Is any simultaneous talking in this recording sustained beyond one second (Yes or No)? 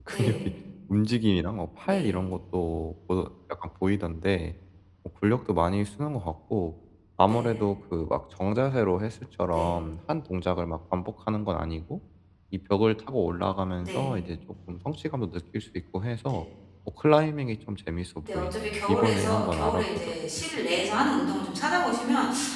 Yes